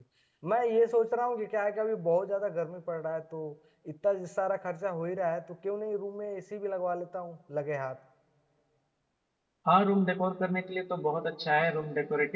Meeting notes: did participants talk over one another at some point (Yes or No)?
No